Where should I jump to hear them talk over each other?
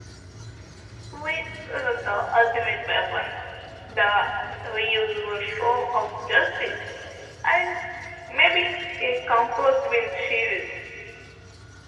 none

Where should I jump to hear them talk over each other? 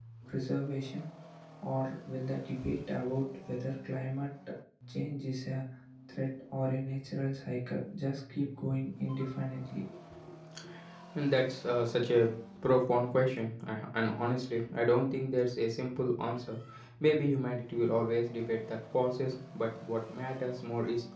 none

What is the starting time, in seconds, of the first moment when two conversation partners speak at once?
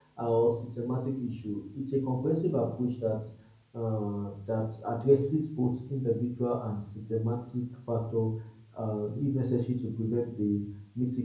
none

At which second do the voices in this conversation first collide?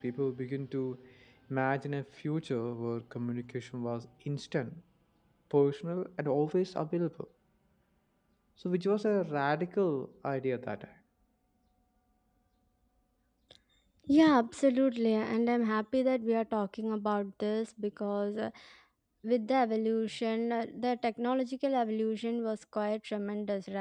none

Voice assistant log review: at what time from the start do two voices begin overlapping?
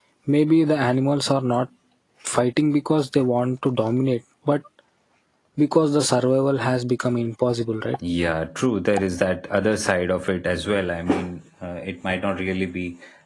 none

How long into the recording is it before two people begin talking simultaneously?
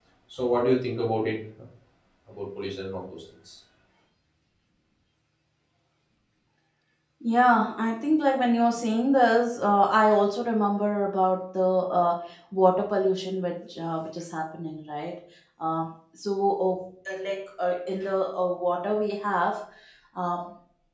none

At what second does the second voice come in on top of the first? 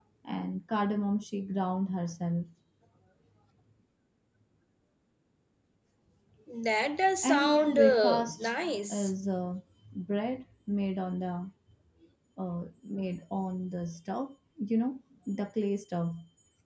7.2 s

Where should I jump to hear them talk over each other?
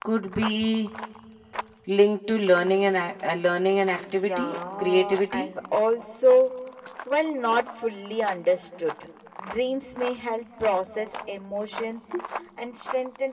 4.0 s

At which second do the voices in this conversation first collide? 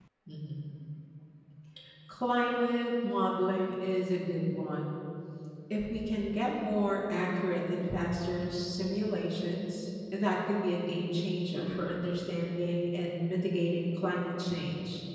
none

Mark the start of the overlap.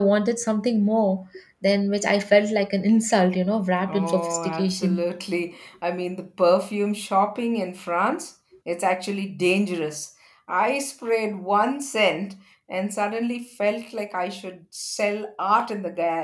3.8 s

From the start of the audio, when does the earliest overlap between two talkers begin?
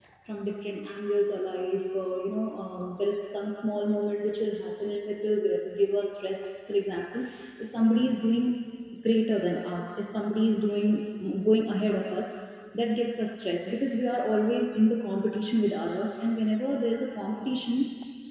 none

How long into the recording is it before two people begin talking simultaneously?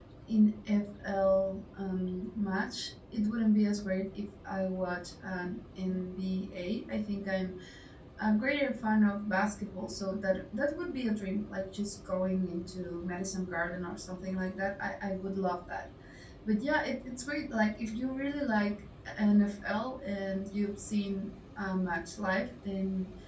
none

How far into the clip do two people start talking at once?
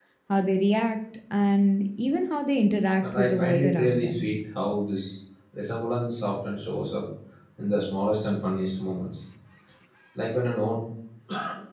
3.0 s

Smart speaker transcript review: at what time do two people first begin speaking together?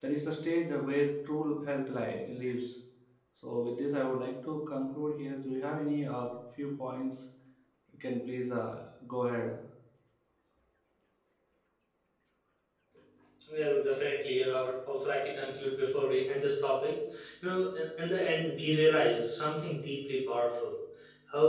none

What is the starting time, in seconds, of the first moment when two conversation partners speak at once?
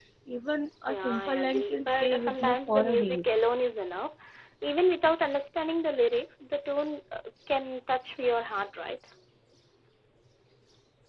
0.9 s

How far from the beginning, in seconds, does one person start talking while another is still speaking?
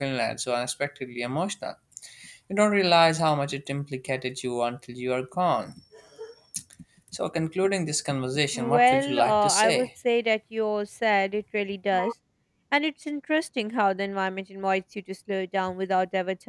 8.5 s

